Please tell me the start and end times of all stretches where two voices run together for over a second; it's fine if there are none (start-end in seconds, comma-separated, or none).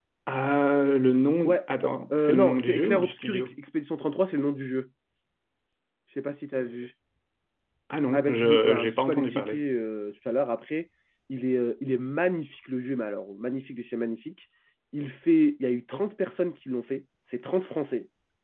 2.1-3.5, 8.1-9.6